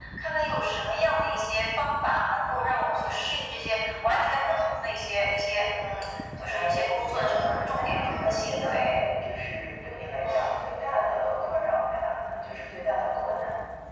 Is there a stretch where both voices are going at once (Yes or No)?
Yes